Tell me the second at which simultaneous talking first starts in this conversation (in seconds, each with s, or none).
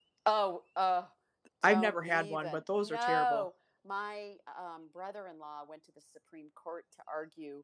1.6 s